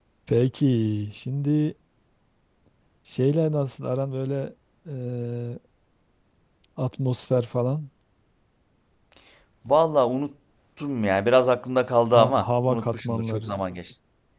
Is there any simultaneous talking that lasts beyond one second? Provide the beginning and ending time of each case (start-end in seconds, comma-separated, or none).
12.1-13.5